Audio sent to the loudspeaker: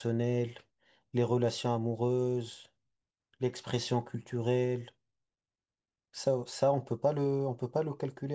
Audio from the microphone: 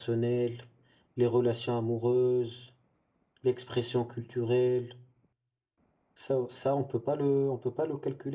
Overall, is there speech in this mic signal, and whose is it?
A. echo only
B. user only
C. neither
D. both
A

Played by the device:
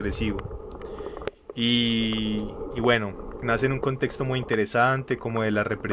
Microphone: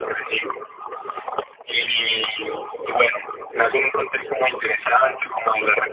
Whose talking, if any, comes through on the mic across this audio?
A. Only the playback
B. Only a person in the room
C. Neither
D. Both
A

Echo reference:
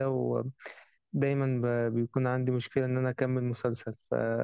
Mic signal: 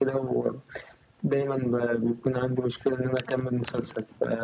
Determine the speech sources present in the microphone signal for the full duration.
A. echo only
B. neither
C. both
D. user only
A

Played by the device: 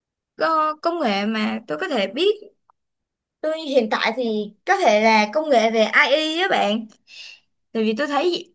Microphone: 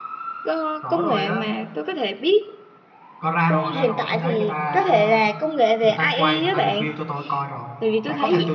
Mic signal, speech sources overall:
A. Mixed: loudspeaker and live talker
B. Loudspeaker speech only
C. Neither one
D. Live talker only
A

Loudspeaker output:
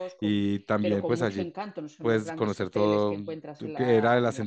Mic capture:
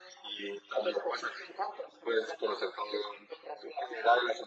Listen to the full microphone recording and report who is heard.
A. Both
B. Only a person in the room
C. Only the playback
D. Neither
C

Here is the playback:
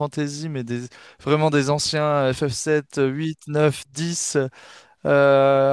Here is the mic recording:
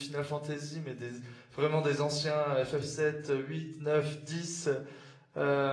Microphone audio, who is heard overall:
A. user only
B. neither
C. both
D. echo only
D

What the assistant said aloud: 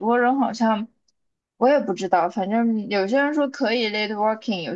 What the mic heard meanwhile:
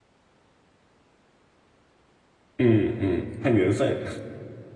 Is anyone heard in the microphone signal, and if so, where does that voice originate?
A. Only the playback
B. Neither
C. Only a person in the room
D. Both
C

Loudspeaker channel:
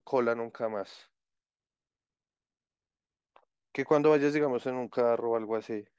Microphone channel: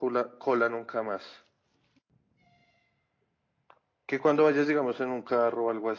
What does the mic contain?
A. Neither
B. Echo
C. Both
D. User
B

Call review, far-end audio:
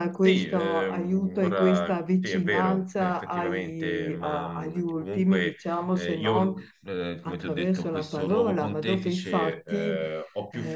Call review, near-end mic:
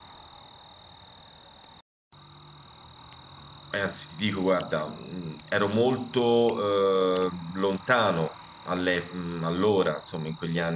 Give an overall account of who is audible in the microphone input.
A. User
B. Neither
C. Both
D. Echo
A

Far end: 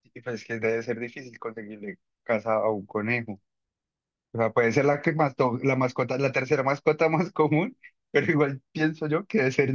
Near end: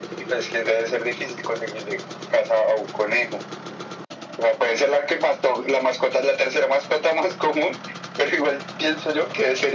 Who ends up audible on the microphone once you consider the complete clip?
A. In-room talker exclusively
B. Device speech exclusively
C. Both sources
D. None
B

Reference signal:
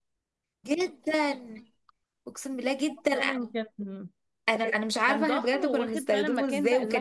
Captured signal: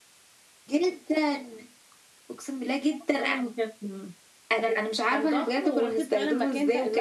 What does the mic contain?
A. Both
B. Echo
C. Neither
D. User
B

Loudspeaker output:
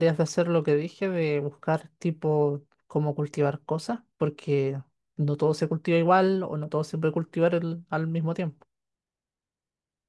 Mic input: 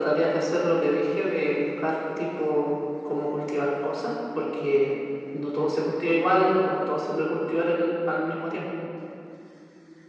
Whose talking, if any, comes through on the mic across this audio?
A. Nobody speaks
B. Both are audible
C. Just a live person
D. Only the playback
D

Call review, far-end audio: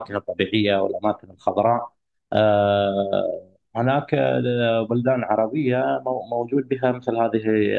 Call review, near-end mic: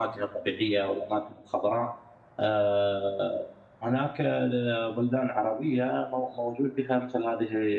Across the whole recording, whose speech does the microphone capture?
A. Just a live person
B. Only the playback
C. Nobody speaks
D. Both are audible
B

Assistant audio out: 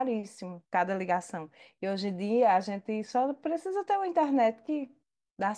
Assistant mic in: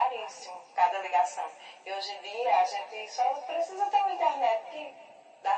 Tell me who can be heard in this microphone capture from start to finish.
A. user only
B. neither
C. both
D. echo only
D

